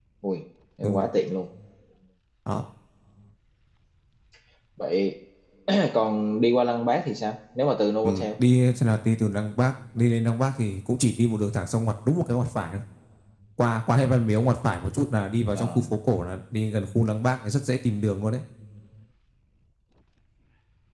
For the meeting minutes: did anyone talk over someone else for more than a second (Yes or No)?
No